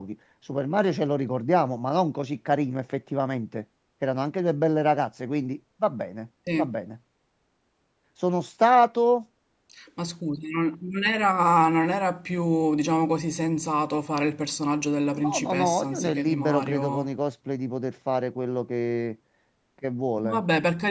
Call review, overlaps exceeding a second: present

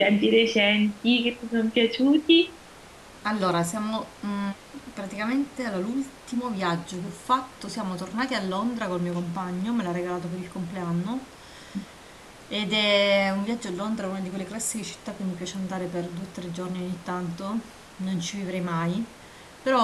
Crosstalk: none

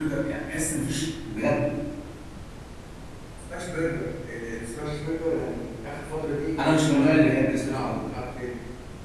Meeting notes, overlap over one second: present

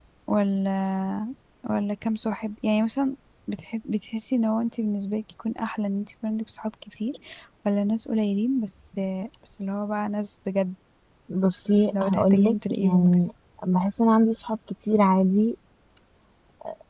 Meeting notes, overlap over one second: present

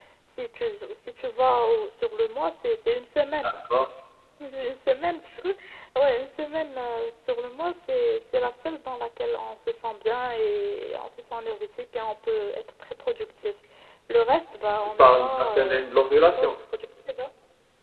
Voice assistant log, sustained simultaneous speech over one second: present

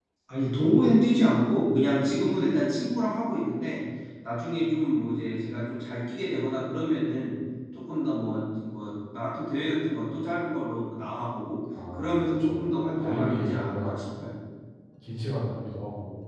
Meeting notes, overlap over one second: present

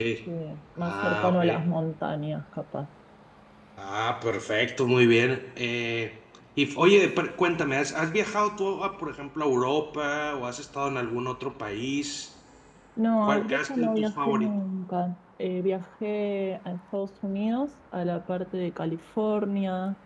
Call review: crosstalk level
present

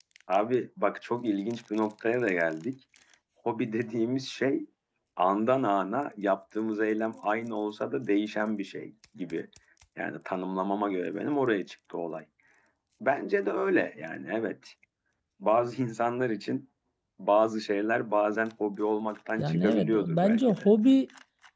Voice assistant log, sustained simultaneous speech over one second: present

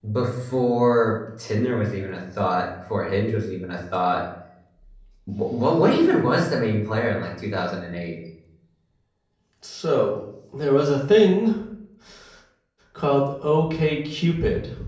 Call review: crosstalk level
none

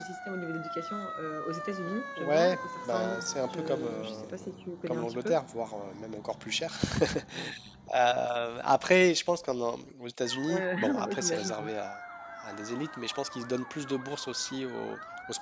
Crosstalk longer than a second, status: present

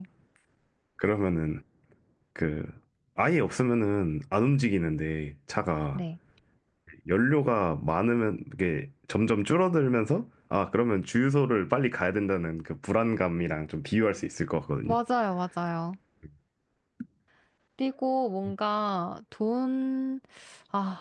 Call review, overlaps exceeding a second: none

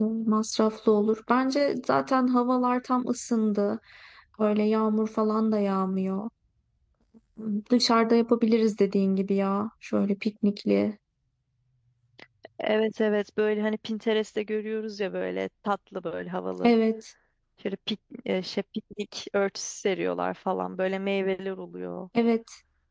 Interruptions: none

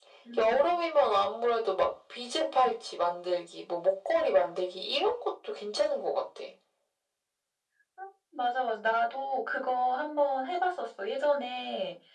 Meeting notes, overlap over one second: none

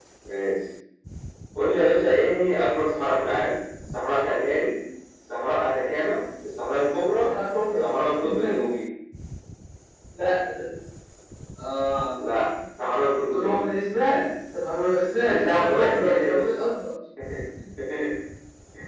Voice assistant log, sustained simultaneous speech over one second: present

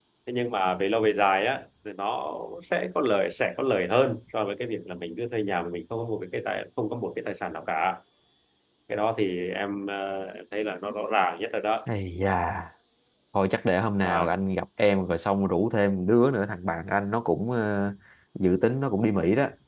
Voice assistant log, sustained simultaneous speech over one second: none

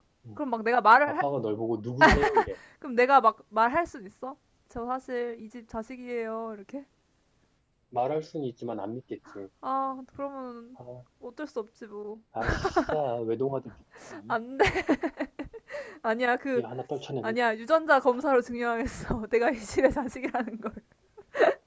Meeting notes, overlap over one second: none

